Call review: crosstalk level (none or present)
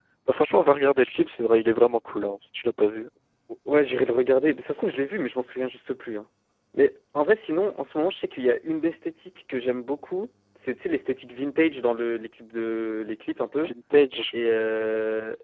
none